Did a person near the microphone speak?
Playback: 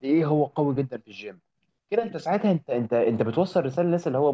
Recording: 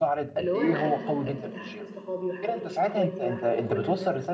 Yes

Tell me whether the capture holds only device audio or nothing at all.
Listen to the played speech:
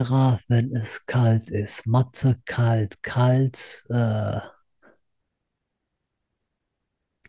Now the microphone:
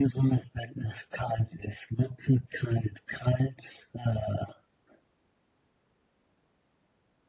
Yes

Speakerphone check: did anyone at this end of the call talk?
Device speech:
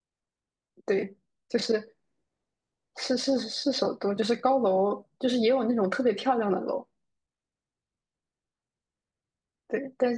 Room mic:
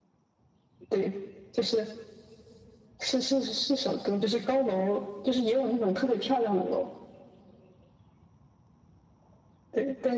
No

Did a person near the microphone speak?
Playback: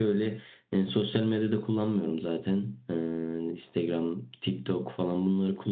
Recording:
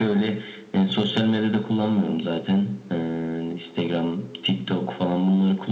No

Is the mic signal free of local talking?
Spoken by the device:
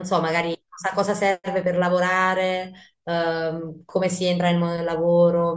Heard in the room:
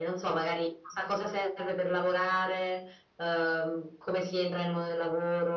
Yes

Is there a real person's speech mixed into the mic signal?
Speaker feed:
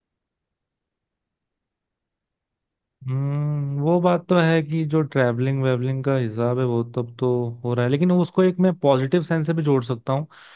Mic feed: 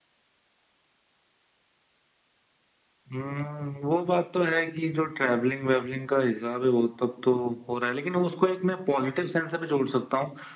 No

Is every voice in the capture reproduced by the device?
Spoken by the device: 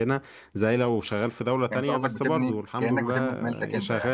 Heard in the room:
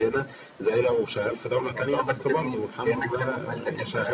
Yes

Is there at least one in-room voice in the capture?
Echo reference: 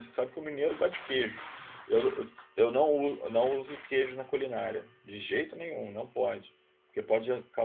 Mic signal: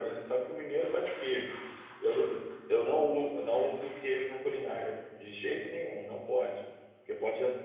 No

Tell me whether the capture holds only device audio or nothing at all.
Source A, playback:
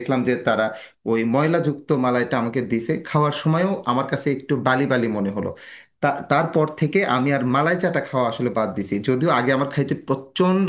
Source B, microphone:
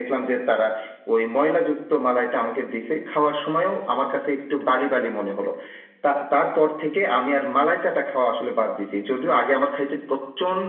Yes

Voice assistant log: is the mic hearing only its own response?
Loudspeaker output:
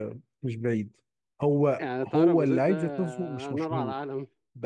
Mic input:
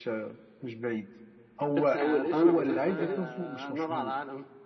No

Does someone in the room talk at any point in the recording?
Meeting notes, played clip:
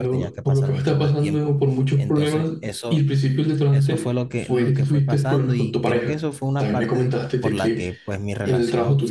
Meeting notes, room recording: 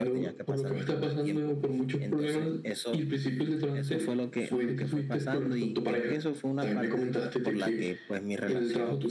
No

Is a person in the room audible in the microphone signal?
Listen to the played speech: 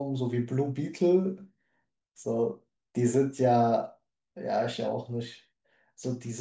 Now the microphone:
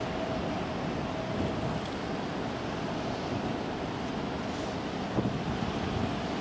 No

